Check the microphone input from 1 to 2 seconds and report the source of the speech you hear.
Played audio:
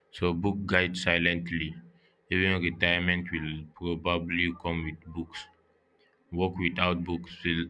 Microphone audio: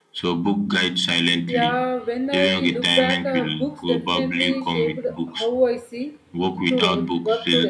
both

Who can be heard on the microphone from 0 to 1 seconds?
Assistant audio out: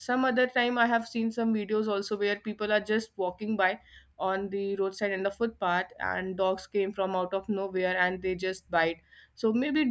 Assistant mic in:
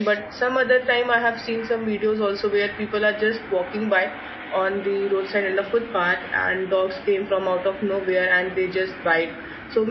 echo only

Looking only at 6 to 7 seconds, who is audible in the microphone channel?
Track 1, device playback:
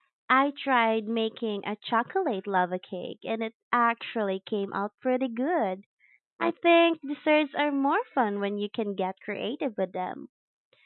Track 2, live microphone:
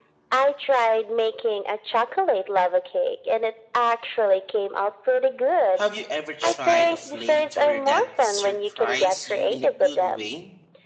both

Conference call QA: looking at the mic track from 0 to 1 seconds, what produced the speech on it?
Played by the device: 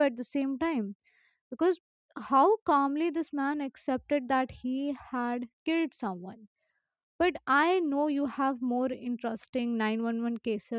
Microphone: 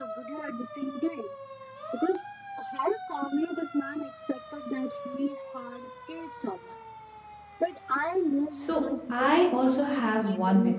echo only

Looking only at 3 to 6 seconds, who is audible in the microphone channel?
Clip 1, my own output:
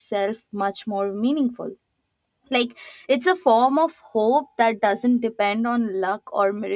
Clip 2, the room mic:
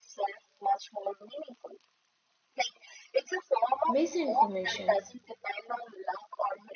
both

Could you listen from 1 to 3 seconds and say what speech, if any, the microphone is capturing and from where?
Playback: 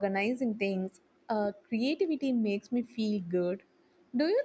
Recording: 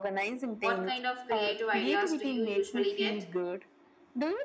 both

